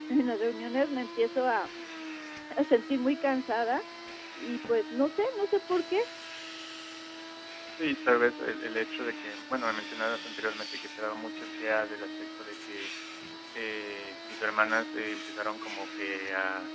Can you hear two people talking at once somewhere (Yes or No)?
No